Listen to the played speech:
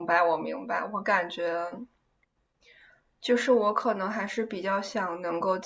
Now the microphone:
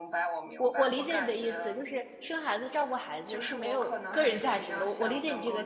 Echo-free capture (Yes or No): No